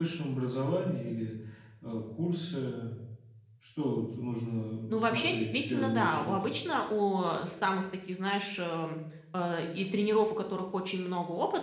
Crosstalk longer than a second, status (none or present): present